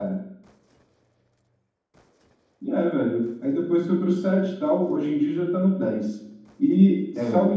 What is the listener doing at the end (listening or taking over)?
listening